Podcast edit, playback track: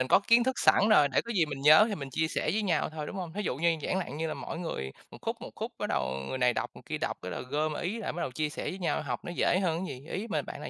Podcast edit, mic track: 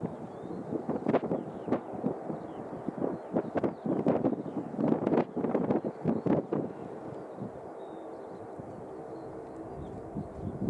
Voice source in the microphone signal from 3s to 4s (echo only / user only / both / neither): neither